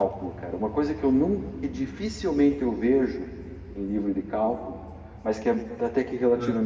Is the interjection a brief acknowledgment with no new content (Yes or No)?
Yes